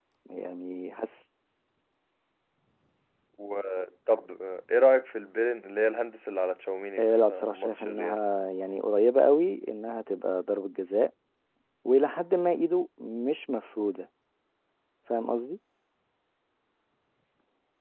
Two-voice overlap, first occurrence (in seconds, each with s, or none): 7.0 s